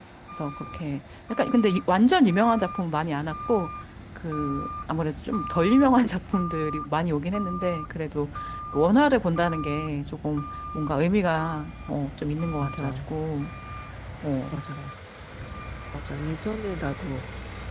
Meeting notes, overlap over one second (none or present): none